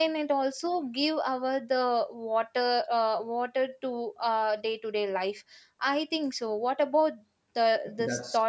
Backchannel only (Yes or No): No